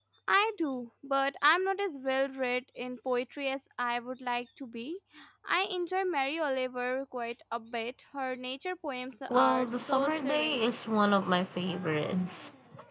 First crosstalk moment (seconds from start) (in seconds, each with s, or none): 9.3 s